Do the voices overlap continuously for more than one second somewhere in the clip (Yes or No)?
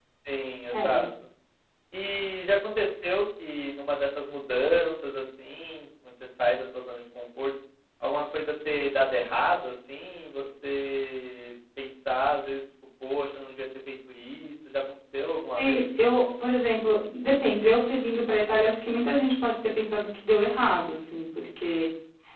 No